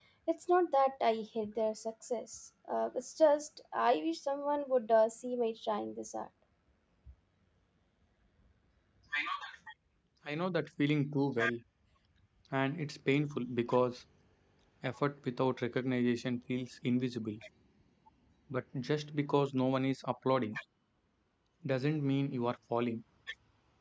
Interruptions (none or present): none